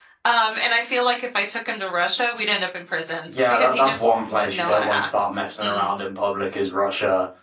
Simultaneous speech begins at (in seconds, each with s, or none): 3.3 s